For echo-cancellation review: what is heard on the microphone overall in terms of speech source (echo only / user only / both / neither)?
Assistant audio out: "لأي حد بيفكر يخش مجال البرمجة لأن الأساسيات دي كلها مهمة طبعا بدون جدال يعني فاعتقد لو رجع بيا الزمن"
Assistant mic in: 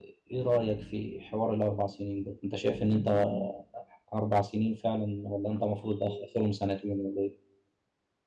user only